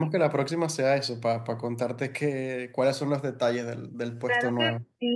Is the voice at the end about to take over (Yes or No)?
Yes